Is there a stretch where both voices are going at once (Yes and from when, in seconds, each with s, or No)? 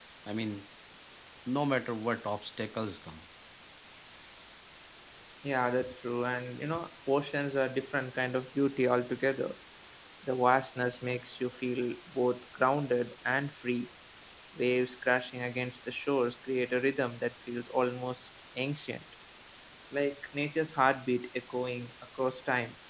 No